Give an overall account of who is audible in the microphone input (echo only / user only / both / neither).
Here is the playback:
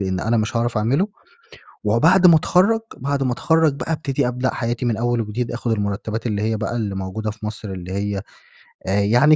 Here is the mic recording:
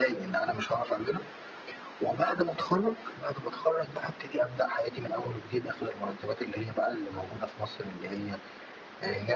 echo only